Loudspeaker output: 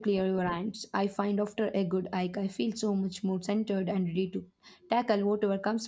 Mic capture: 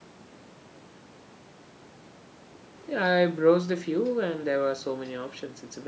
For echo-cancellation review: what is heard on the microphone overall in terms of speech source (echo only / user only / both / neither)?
user only